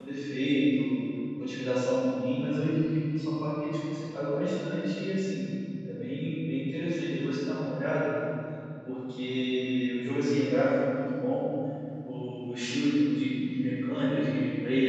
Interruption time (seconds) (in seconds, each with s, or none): none